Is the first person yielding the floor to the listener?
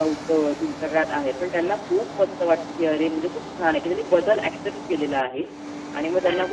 No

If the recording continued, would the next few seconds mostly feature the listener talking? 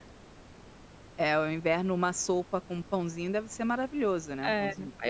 Yes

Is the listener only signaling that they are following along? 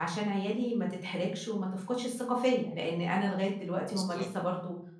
Yes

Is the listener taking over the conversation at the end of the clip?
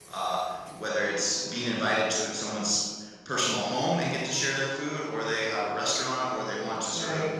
No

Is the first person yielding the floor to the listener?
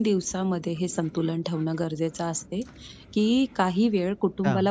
No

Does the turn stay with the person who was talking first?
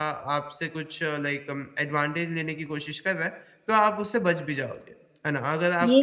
Yes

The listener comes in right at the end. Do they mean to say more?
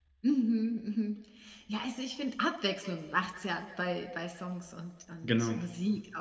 No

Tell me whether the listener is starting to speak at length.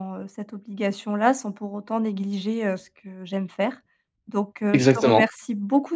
No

